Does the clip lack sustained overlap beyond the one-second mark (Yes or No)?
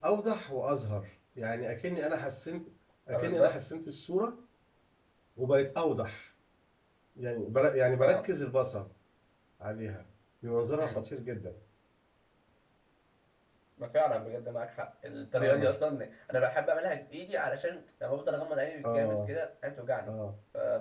Yes